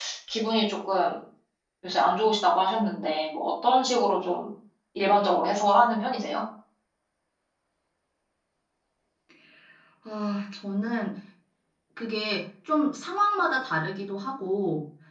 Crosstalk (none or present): none